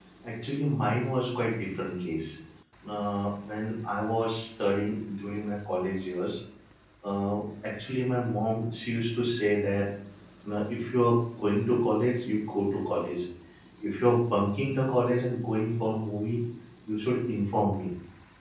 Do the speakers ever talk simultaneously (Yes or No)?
No